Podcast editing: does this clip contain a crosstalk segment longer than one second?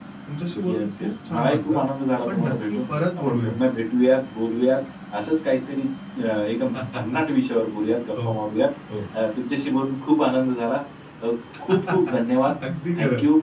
Yes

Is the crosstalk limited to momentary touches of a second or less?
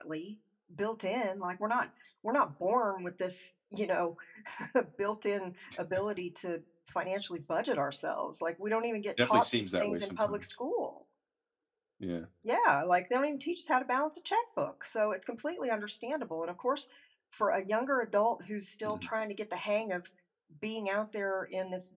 No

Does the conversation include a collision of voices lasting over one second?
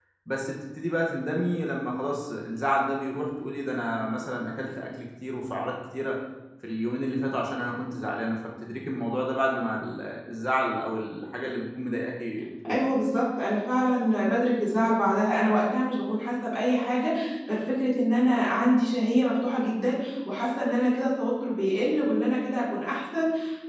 No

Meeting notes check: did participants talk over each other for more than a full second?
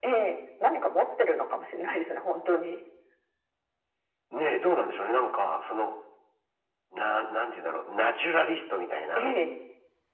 No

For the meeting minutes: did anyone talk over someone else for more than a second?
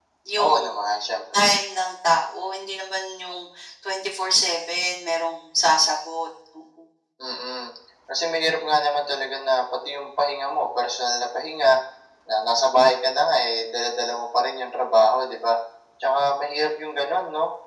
No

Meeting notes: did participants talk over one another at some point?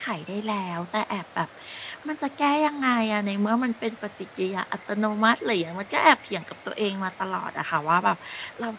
No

